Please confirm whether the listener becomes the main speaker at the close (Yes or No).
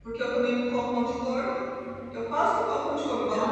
Yes